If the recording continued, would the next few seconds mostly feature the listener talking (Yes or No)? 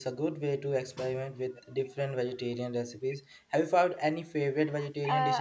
Yes